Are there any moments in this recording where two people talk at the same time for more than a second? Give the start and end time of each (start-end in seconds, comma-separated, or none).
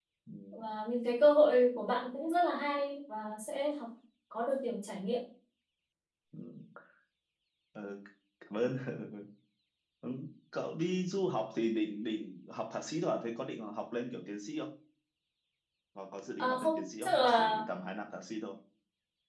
16.4-17.6